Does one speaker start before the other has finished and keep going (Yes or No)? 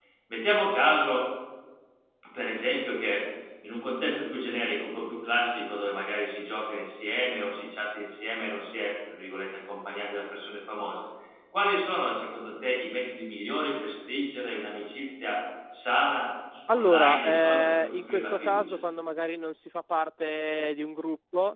Yes